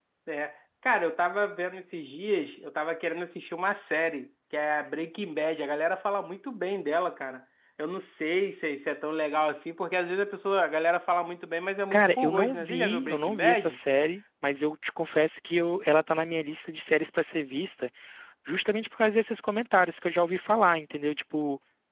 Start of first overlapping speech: 11.9 s

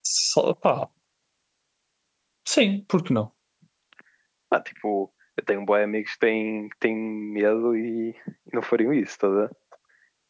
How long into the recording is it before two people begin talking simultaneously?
none

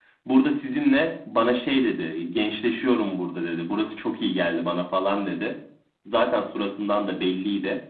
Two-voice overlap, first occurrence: none

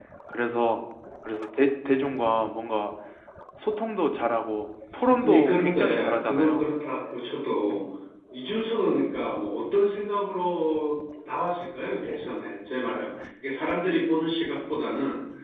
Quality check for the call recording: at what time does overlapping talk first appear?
5.2 s

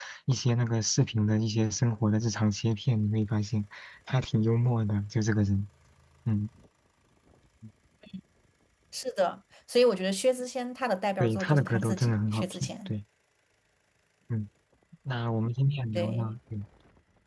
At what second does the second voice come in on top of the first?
11.2 s

